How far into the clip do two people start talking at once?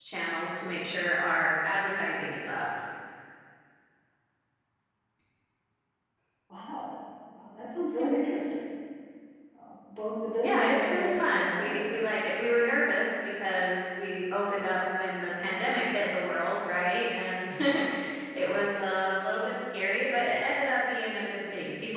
10.4 s

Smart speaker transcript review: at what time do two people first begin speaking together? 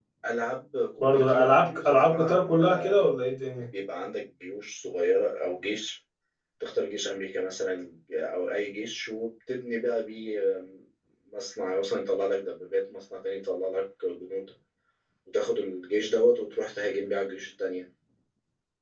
1.0 s

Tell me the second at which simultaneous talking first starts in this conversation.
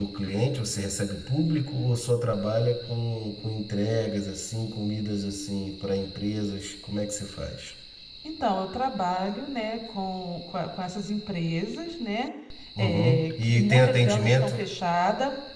12.8 s

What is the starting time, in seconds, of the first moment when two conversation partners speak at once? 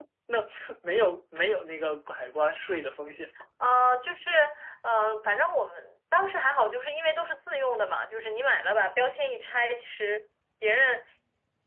none

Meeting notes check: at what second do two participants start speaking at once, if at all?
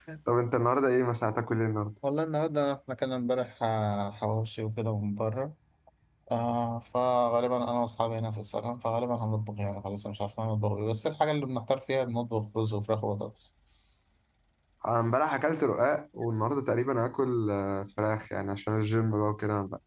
none

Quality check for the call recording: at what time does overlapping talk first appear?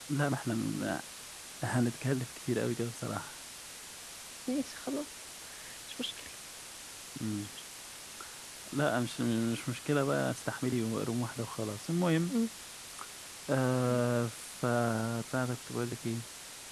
none

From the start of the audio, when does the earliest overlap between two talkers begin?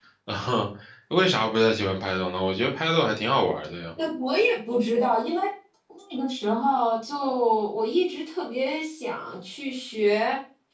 none

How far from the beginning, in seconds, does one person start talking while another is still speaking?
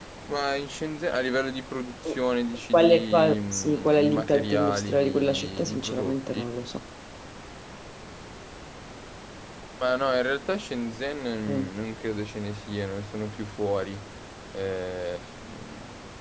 2.7 s

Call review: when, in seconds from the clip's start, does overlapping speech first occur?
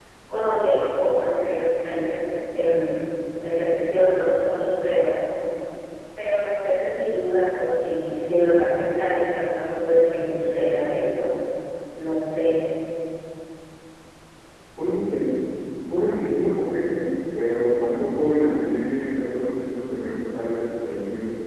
none

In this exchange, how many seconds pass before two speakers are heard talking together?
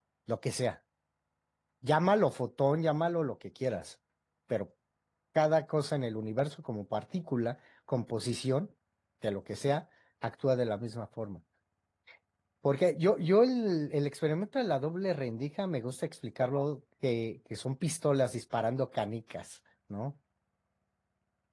none

